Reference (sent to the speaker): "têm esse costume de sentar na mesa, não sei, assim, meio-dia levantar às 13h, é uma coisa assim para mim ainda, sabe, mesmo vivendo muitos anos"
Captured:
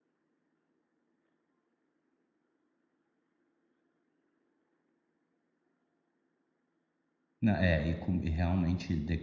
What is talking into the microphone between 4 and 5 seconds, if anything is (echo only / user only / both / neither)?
neither